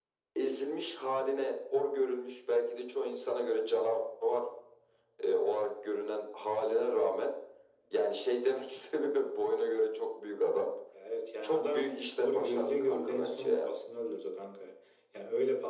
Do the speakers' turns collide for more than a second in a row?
Yes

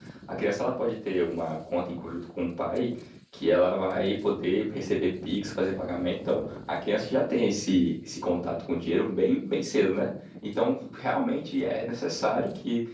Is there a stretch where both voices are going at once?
No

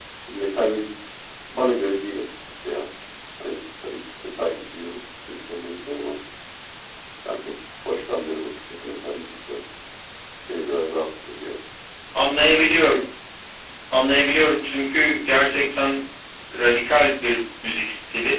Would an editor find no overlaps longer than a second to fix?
Yes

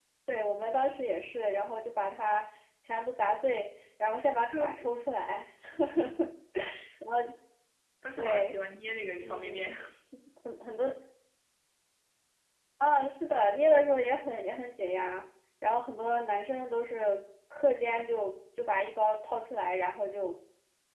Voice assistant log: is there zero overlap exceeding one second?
Yes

